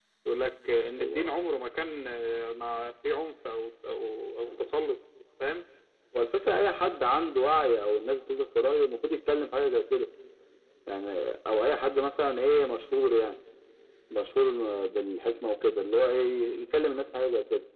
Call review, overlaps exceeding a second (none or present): none